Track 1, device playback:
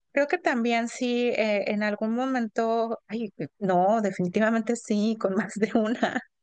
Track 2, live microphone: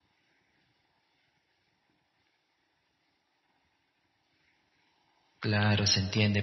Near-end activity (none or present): present